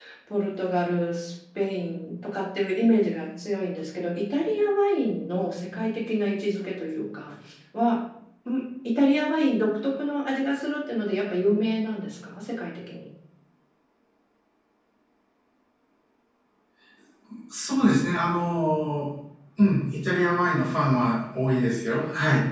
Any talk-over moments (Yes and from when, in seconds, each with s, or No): No